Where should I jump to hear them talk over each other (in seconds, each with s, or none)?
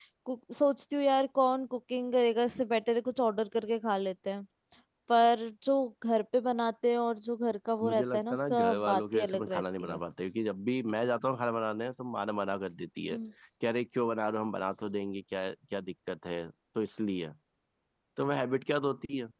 7.8 s